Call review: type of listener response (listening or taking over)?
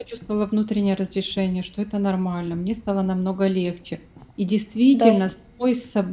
listening